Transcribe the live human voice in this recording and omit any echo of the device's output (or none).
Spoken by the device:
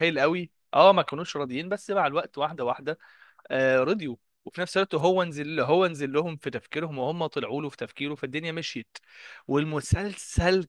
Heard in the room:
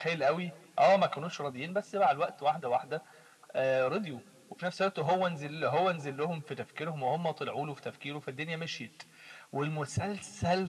none